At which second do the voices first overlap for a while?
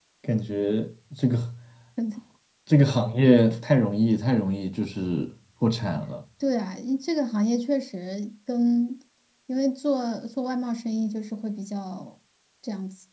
none

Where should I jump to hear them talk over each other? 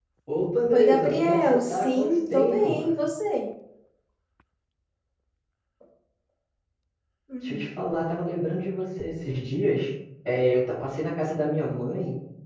0.7 s

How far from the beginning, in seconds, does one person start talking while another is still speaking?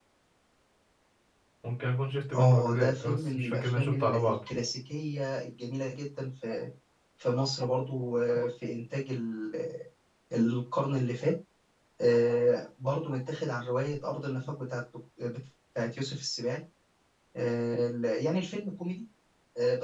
2.4 s

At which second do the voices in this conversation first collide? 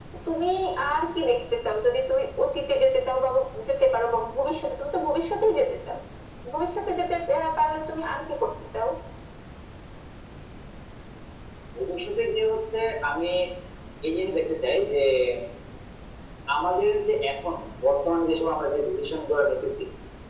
none

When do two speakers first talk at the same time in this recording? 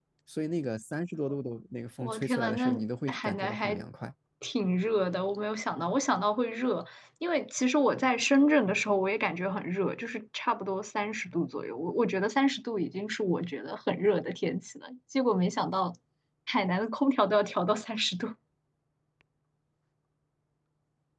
2.0 s

